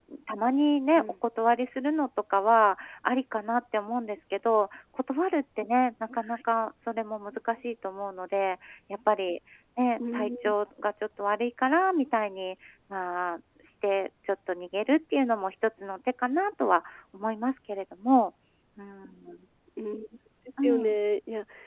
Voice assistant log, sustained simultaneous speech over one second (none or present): none